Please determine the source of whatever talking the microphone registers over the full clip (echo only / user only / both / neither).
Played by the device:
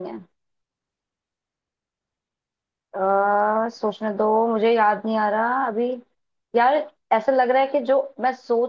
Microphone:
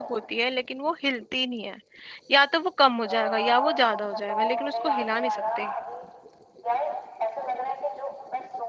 both